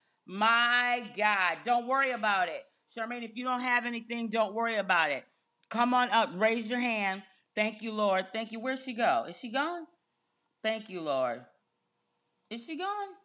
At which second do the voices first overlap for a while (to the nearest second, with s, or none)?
none